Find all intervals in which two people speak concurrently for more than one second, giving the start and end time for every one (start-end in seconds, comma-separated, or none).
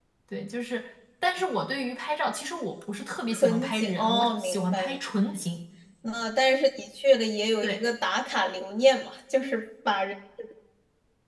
3.3-5.0